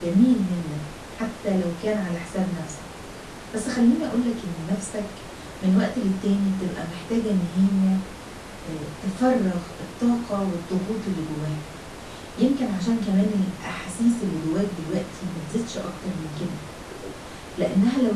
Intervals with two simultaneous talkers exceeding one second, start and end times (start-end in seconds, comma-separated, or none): none